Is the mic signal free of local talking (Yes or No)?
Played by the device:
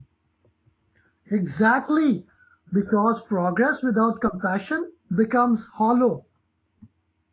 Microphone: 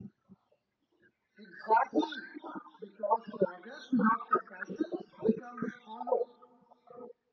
Yes